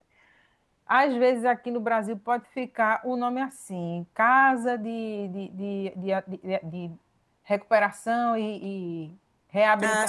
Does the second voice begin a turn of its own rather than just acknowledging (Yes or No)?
No